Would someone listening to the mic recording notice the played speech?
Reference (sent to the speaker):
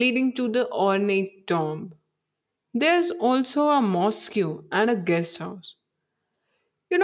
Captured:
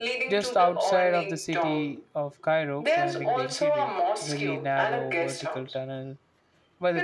Yes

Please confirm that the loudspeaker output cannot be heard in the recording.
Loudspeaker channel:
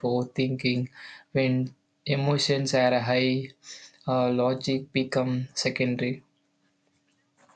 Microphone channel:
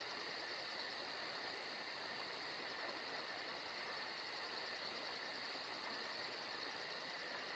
Yes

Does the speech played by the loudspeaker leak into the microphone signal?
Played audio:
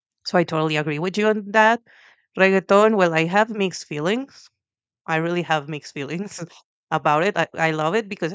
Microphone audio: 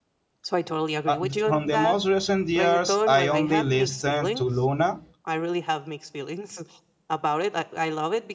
Yes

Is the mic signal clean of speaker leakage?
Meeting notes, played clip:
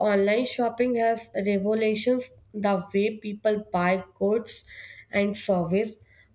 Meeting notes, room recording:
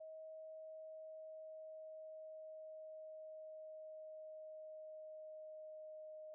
Yes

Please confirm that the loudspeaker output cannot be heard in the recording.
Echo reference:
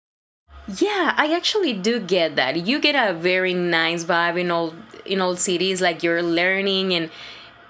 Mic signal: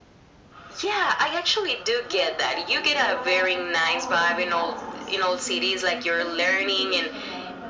No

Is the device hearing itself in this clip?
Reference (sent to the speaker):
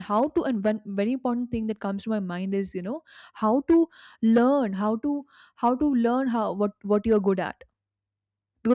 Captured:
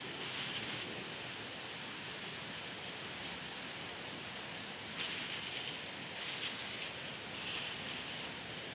No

